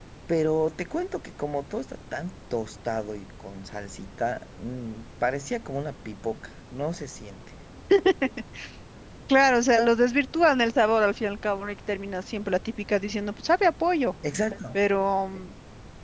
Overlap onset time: none

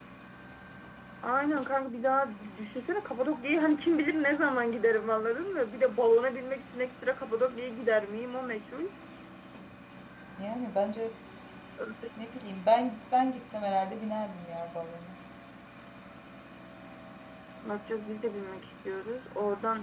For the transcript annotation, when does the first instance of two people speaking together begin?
none

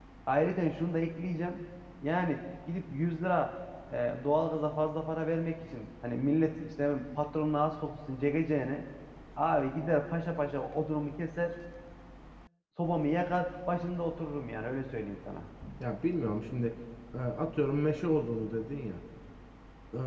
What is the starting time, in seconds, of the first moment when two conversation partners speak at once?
none

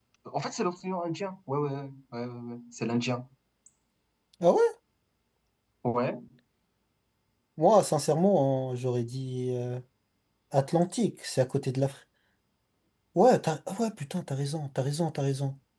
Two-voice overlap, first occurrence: none

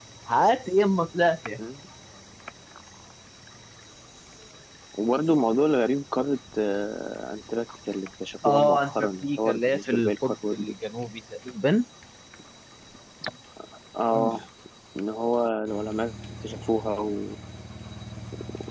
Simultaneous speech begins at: 8 s

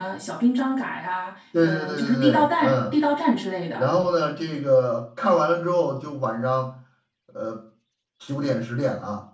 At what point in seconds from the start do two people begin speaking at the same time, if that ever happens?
2 s

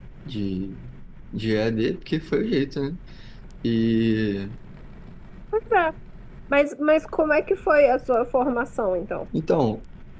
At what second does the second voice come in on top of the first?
none

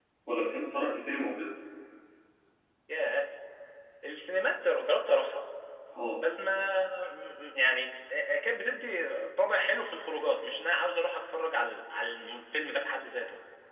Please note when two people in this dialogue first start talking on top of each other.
none

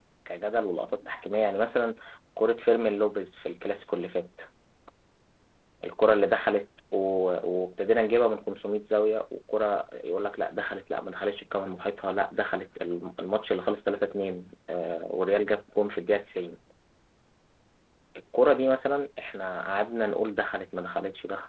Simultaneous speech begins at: none

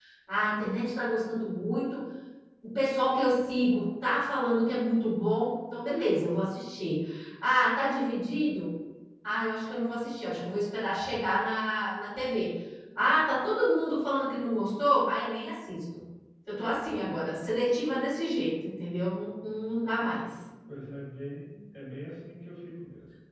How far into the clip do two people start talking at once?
none

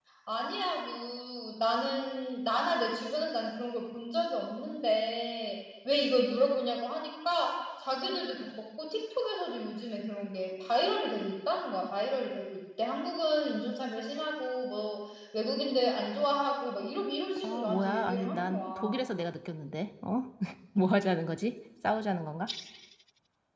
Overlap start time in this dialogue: 17 s

